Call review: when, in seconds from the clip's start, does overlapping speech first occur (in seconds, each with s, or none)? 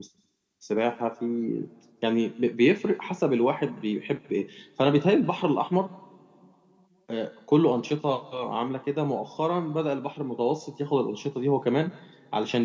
none